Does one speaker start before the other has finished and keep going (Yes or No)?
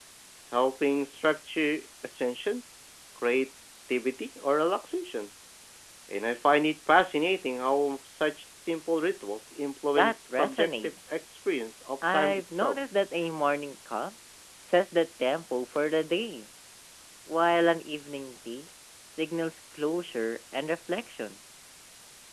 Yes